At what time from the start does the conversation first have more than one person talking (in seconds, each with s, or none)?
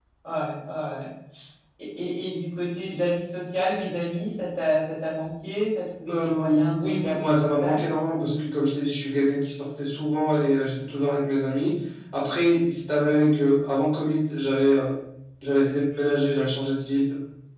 6.1 s